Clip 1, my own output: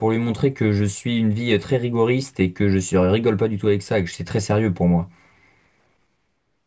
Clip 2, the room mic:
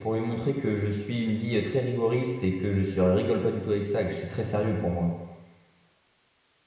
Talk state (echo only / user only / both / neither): echo only